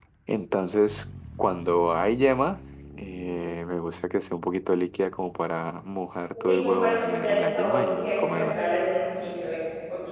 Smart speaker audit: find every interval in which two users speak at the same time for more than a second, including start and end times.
6.5-8.6

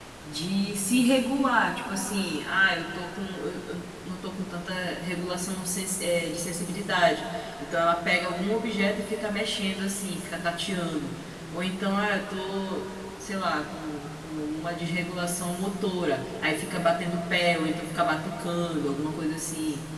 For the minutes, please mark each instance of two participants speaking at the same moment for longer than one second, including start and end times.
none

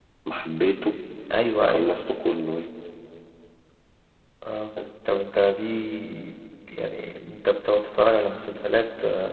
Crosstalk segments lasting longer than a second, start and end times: none

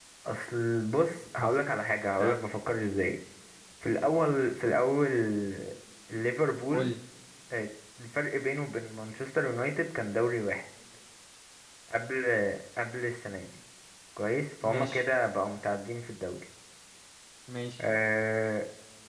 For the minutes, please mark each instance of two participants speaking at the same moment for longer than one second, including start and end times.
none

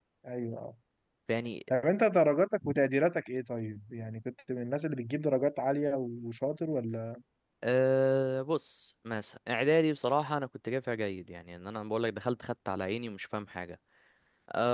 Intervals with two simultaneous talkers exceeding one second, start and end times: none

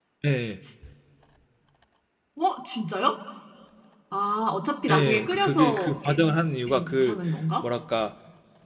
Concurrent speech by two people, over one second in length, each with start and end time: 4.9-6.2

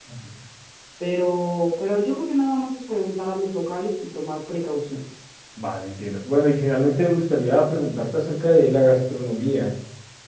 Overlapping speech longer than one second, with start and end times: none

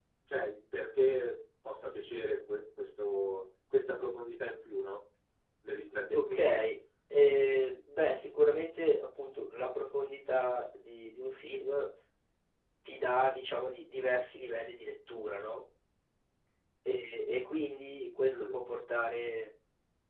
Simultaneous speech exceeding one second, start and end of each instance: none

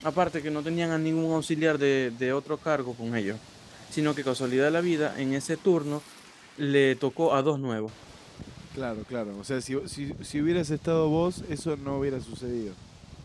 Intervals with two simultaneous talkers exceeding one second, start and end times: none

